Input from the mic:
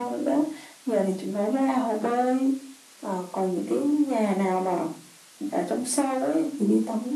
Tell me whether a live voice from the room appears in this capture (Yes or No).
No